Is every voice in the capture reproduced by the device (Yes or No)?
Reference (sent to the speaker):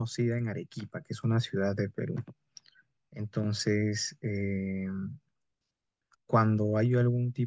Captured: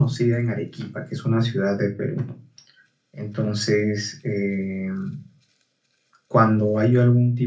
Yes